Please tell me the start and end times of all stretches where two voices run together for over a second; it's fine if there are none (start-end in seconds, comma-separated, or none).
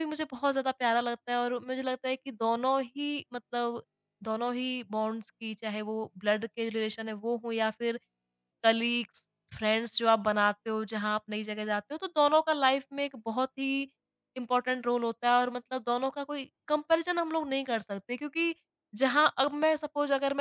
none